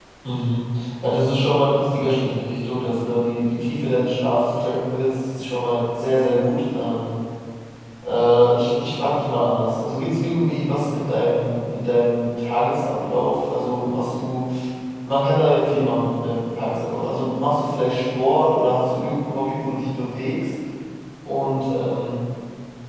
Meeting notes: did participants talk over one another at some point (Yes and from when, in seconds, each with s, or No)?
No